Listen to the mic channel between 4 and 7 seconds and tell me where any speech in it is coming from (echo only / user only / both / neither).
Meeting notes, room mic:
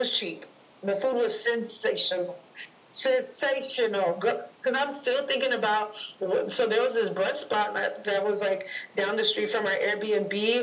echo only